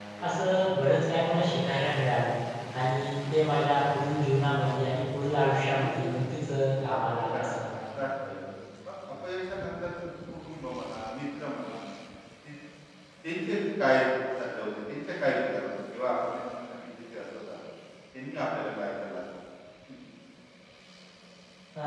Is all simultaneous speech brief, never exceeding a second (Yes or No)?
No